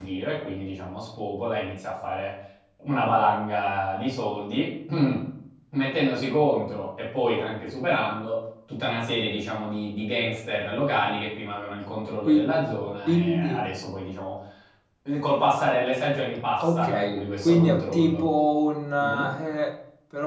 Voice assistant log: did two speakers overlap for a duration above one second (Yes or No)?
Yes